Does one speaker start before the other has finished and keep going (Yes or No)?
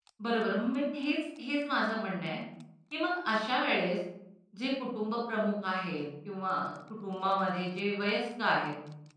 No